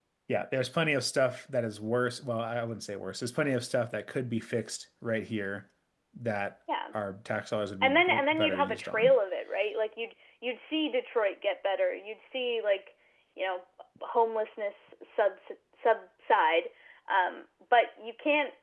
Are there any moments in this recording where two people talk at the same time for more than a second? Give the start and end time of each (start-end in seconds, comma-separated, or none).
7.8-9.1